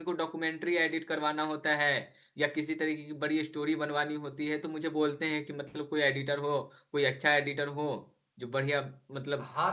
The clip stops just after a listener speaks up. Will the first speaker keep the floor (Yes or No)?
No